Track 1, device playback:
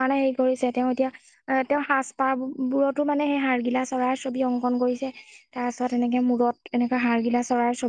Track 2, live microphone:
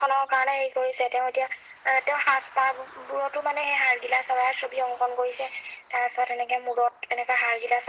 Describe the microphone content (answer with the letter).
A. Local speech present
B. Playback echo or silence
B